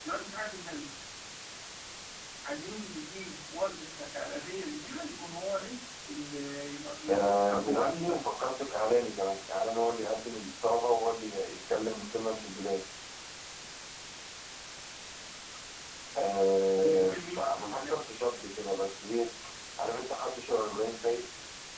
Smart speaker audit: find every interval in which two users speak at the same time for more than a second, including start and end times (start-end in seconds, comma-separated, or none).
7.1-8.3, 16.8-18.0